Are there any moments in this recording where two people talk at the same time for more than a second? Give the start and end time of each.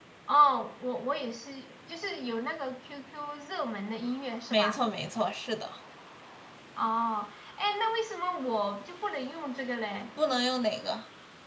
none

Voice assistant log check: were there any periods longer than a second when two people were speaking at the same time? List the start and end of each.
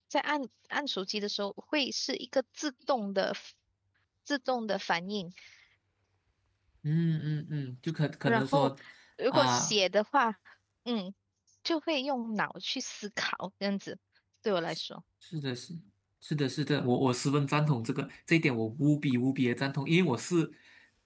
none

